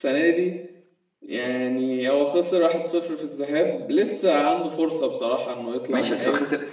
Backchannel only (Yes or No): No